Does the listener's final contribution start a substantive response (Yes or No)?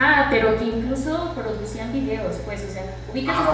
No